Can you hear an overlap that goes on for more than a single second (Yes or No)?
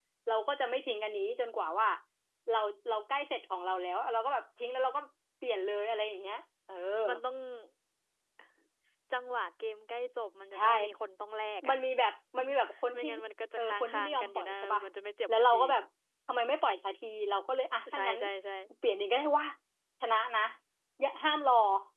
Yes